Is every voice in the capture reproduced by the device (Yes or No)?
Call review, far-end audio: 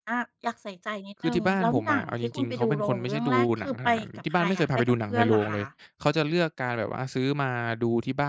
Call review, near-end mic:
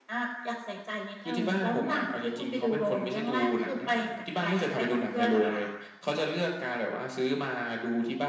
Yes